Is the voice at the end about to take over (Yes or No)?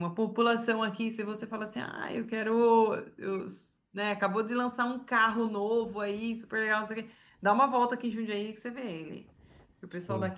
No